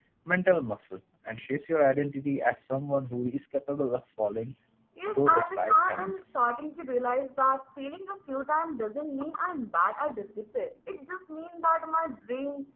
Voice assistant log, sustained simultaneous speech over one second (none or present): present